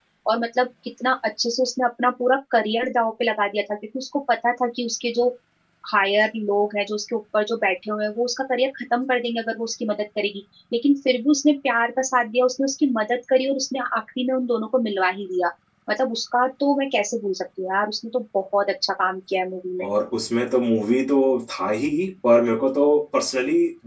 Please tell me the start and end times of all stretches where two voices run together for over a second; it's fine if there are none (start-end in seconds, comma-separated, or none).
none